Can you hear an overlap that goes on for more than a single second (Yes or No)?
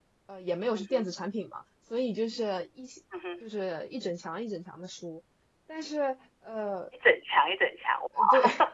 No